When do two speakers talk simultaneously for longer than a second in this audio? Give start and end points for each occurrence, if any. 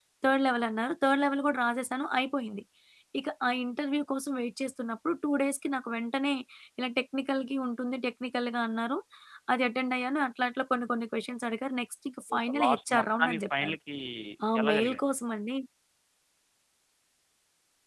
12.3-13.8

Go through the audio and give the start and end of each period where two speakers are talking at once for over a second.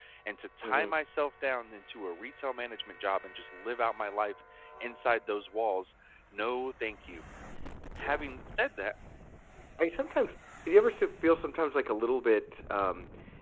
none

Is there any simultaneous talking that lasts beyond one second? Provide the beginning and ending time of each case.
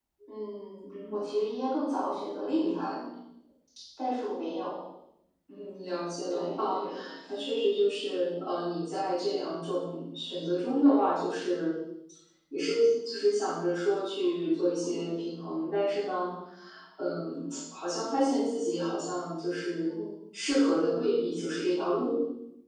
5.6-6.8

